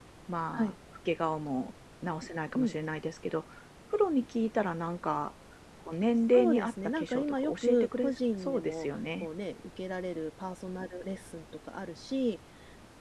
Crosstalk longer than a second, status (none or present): present